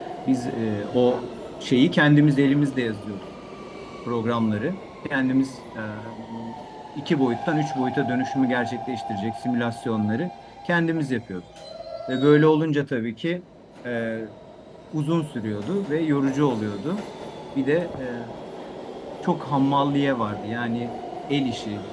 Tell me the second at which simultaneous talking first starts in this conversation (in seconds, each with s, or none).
none